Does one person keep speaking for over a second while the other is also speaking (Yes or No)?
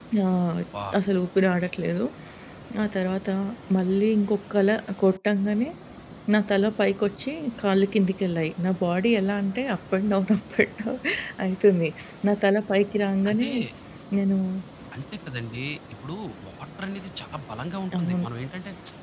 No